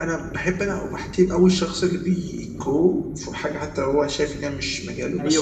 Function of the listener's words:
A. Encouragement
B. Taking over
B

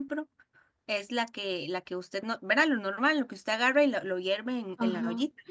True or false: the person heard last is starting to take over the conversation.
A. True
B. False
A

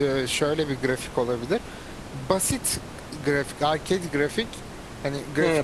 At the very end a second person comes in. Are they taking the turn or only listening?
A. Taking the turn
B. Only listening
A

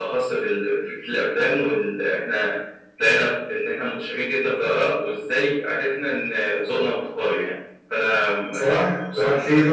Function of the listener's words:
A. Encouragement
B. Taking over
B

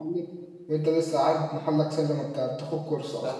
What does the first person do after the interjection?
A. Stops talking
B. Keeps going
A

